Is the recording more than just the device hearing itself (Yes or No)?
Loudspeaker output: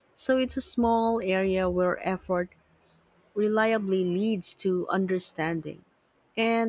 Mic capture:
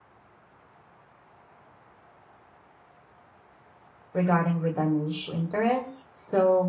Yes